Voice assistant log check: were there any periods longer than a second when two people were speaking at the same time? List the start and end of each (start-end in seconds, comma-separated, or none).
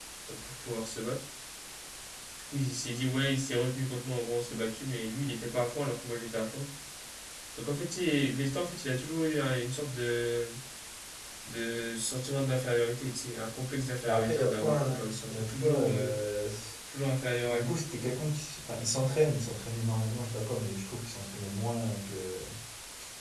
14.1-16.1